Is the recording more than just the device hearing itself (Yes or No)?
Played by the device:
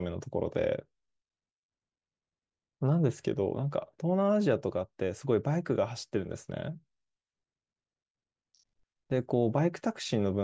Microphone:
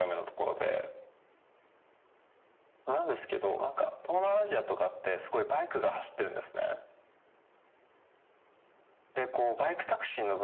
No